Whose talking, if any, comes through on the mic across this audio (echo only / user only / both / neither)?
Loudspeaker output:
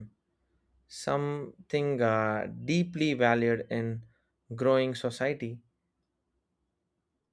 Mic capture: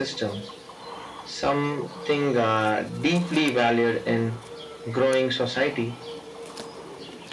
echo only